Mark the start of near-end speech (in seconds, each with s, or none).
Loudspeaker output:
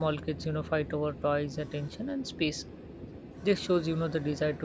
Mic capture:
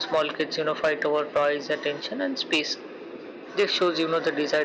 none